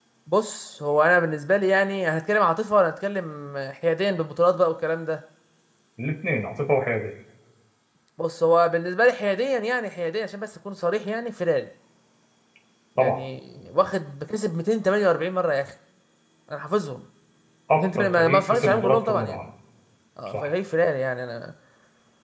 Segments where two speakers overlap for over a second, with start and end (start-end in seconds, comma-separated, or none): 17.8-19.4